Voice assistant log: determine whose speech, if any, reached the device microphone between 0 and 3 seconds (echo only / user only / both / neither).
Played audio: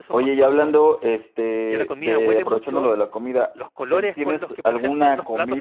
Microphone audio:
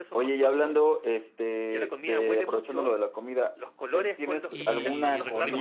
echo only